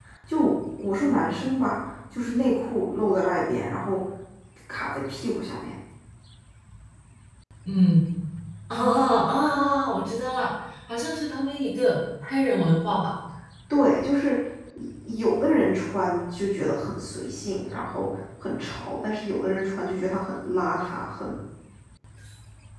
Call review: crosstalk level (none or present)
none